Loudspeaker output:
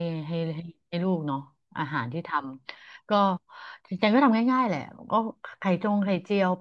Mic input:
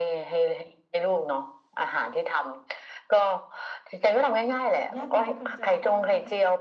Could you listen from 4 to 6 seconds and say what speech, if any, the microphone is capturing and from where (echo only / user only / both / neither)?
both